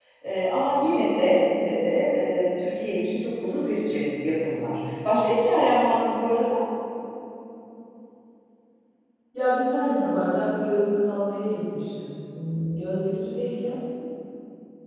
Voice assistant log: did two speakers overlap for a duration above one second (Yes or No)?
No